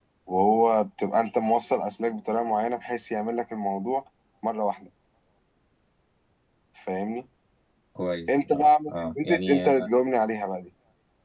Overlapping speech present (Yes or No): Yes